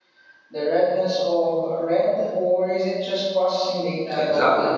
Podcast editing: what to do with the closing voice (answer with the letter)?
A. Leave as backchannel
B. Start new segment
B